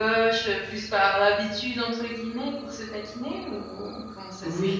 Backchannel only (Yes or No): No